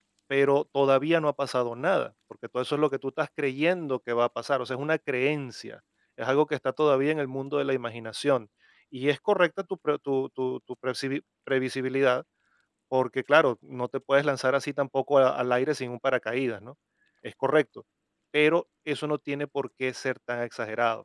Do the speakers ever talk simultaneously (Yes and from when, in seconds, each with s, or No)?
No